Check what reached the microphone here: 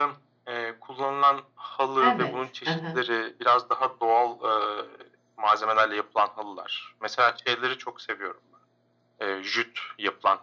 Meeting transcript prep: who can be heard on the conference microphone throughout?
both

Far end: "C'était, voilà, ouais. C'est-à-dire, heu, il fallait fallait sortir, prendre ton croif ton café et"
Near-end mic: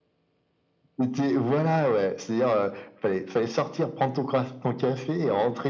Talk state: echo only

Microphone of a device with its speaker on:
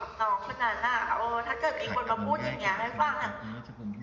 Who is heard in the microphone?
both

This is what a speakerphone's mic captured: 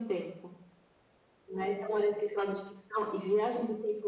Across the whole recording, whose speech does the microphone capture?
echo only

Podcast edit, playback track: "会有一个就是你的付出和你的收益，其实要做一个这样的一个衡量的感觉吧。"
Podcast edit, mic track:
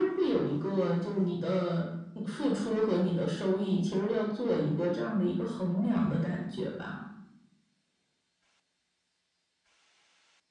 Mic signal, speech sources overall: echo only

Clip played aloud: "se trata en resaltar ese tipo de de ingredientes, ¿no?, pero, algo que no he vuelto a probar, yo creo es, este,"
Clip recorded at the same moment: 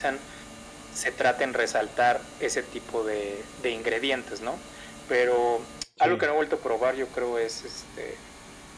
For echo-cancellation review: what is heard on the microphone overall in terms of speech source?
both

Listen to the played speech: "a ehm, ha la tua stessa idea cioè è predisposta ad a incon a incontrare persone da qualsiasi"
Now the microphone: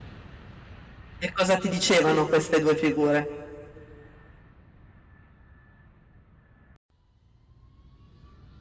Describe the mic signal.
user only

